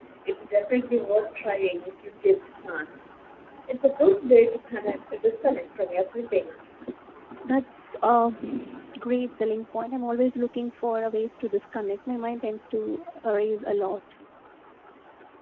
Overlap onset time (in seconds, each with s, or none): none